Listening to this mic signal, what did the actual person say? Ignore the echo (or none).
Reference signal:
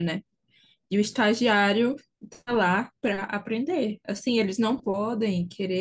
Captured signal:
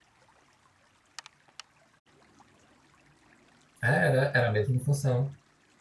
É, Era, era a mesma função.